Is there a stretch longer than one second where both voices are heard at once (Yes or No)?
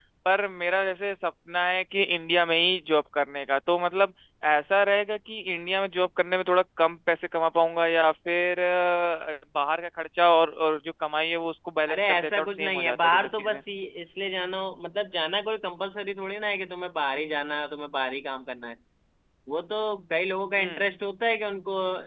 Yes